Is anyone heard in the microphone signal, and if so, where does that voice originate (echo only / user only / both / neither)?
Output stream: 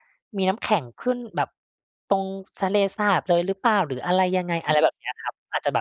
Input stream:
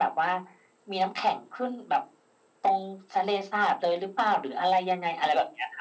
echo only